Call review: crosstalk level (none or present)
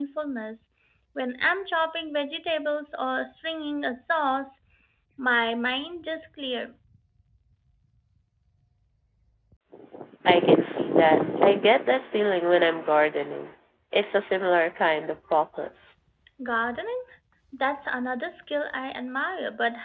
none